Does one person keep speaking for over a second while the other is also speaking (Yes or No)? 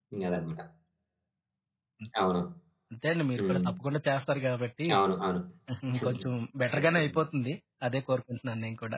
No